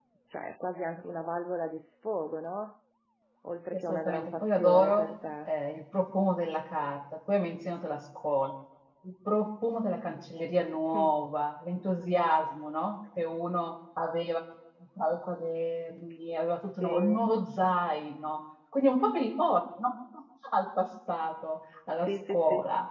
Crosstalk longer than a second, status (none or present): present